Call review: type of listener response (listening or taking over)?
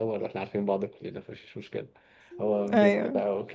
listening